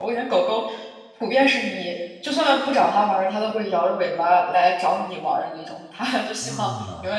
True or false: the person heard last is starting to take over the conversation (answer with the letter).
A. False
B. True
A